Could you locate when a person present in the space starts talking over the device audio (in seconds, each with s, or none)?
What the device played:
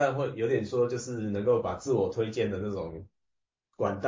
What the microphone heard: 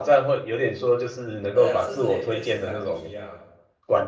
1.5 s